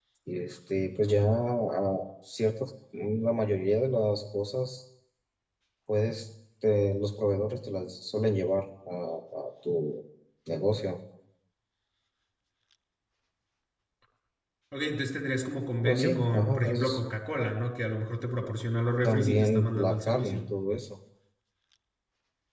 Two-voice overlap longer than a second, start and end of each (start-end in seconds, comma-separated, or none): 15.8-17.1, 19.0-20.4